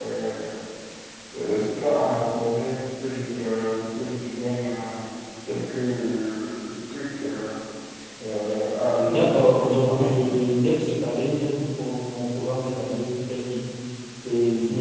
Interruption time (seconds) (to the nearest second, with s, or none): 9 s